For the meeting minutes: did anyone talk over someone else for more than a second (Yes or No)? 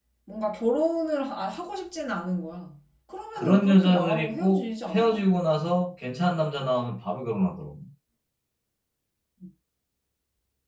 Yes